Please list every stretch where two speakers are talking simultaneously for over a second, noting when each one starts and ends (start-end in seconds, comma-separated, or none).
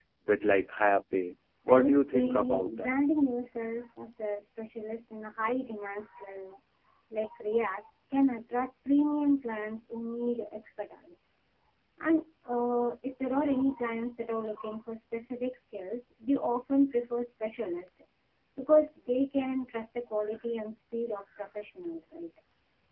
1.7-3.0